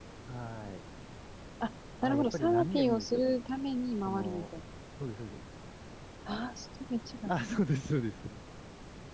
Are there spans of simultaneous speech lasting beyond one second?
Yes, from 2.0 s

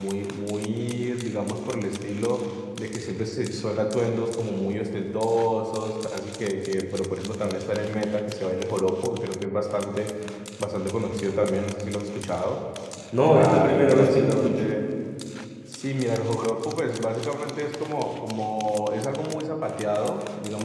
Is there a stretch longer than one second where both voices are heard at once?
Yes, from 13.4 s

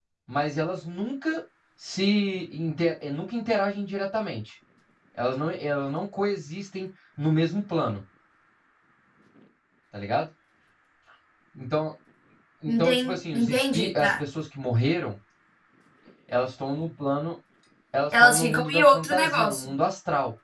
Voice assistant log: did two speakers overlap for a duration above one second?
Yes, from 12.7 s

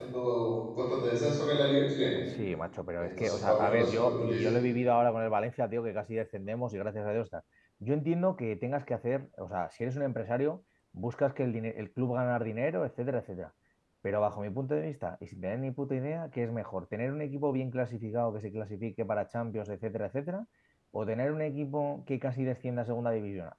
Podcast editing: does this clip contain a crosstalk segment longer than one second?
Yes, from 3.0 s

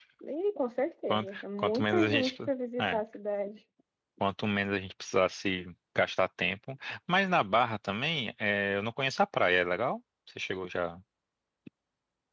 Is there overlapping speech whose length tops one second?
Yes, from 1.1 s

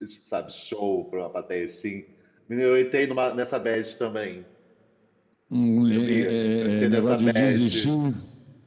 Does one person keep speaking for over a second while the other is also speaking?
Yes, from 6.0 s

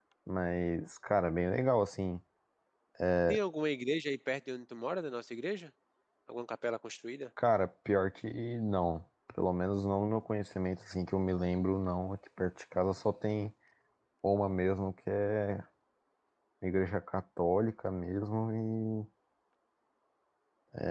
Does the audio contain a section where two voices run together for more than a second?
No

